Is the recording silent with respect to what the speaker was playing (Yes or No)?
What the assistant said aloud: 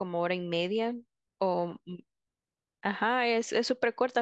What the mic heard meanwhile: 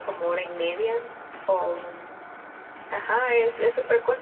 No